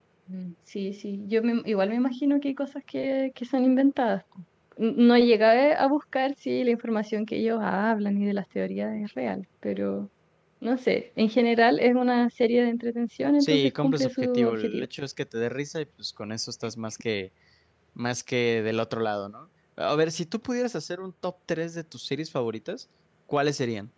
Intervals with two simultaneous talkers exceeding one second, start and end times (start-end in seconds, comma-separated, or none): 13.4-14.8